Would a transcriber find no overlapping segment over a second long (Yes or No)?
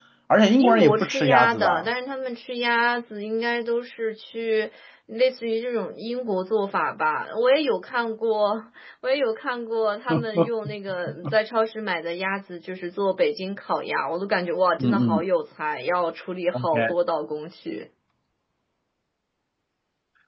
No